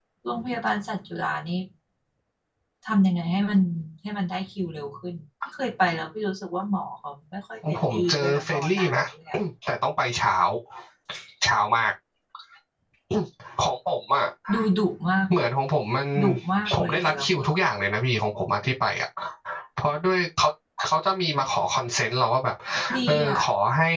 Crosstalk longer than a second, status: present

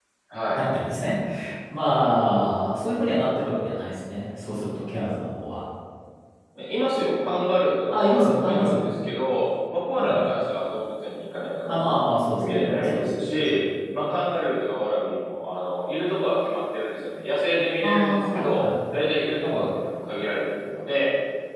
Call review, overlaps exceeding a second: present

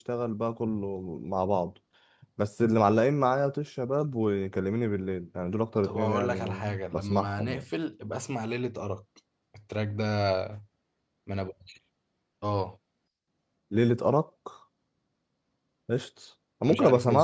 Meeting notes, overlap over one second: present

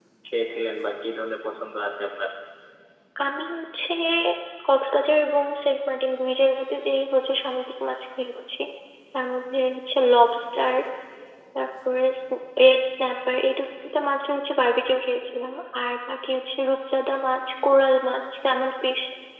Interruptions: none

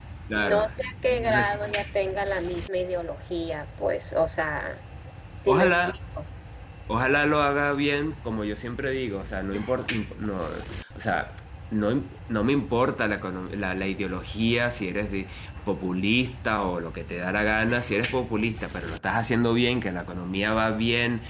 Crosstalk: present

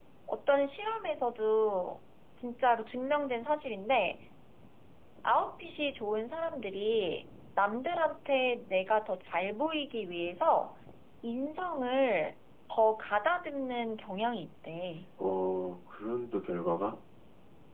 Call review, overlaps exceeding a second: none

